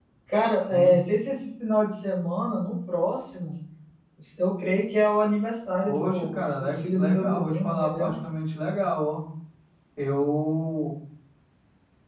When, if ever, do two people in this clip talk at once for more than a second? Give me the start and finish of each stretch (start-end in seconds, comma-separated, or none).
5.9-8.1